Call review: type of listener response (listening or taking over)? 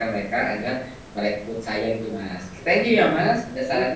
taking over